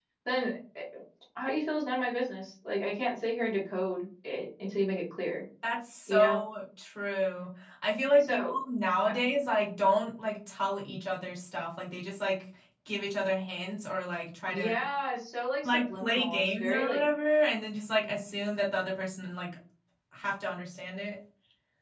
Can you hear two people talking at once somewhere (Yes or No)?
Yes